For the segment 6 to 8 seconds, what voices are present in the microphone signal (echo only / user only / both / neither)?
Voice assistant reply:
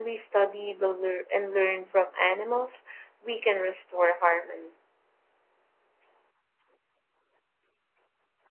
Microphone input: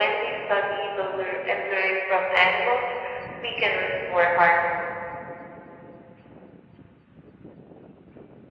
neither